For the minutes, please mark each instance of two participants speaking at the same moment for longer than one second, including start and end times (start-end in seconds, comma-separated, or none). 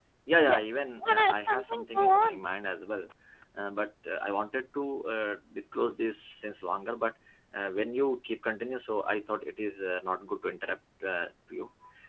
1.0-2.4